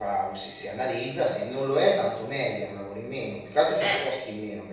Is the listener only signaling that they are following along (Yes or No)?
Yes